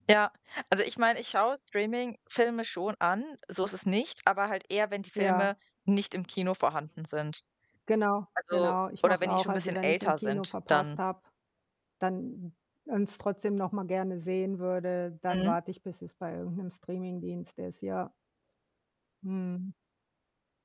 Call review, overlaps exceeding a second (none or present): present